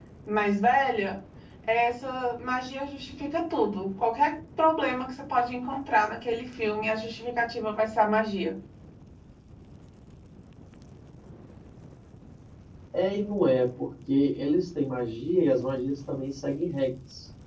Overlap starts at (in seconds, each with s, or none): none